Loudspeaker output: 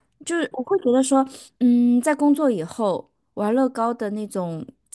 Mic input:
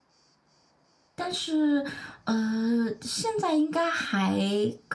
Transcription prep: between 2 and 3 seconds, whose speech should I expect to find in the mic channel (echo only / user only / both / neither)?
user only